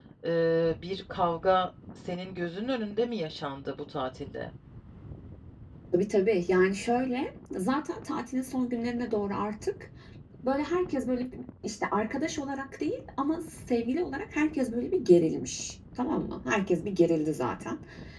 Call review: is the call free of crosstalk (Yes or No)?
Yes